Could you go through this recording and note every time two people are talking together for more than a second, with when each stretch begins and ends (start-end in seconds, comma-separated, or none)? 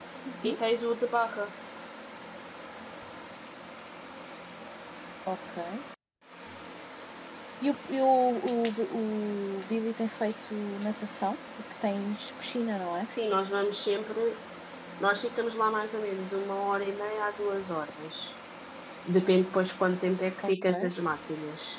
none